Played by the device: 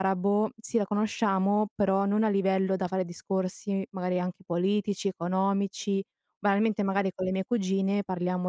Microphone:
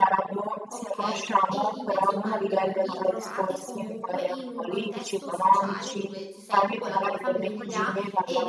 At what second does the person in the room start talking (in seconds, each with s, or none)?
0.7 s